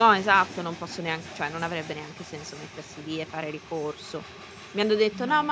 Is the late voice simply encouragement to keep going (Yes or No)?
Yes